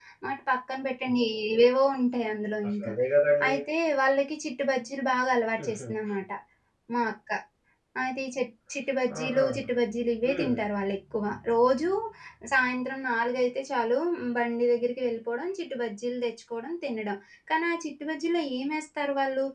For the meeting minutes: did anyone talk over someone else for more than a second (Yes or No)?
No